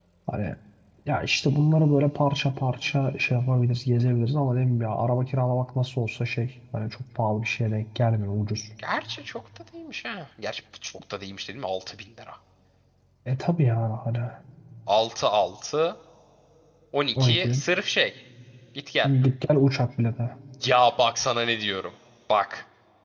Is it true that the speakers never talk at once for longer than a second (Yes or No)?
Yes